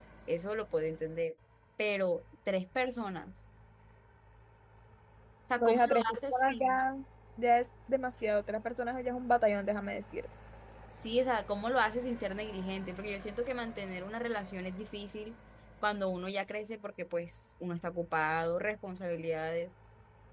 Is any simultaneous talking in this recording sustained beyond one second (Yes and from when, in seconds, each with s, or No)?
Yes, from 5.6 s